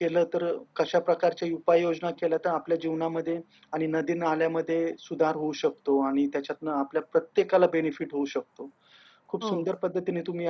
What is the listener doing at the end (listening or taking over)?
listening